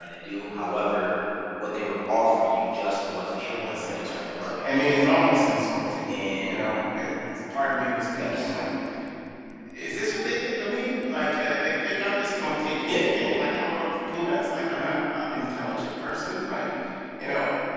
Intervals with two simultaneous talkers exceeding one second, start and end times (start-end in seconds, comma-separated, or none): 3.4-4.6